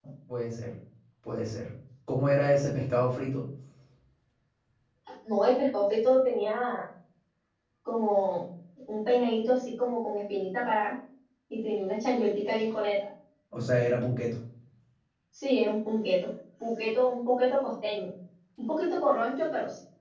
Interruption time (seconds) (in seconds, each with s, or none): none